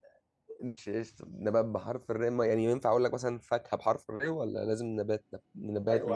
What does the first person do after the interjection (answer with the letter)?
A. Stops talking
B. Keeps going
A